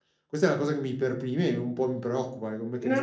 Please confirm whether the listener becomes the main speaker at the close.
Yes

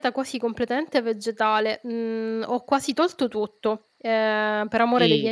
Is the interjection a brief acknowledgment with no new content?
No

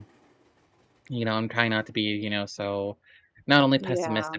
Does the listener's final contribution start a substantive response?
No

